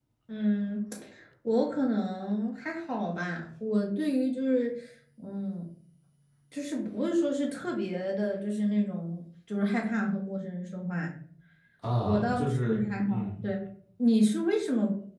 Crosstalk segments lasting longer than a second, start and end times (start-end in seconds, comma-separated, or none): 12.1-13.3